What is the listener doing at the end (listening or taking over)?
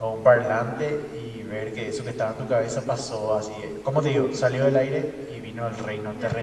taking over